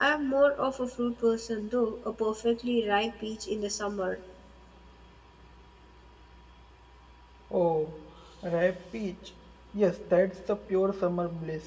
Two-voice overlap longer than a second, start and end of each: none

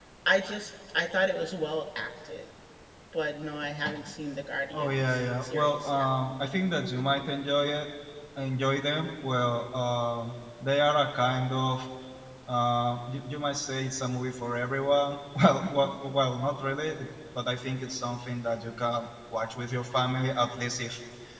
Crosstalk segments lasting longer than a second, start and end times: 4.7-6.1

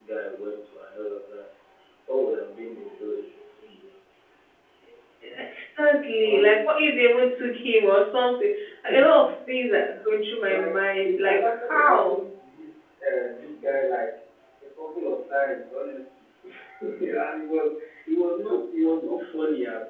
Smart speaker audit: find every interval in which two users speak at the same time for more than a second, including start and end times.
10.4-12.2

